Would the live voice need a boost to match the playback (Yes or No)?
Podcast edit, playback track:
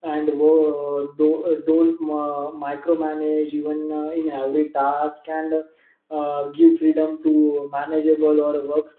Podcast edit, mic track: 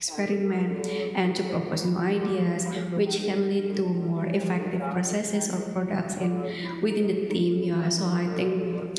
No